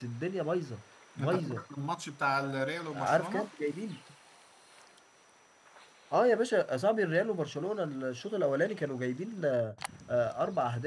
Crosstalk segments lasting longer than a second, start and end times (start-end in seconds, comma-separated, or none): none